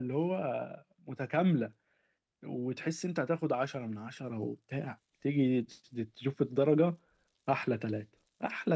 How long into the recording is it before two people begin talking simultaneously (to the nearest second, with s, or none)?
none